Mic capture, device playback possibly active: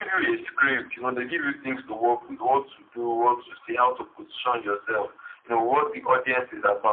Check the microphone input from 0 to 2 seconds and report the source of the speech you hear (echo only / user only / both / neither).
echo only